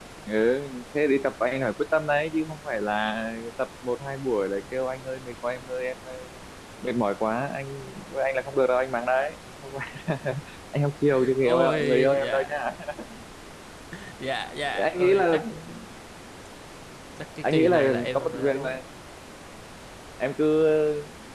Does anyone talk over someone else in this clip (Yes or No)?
Yes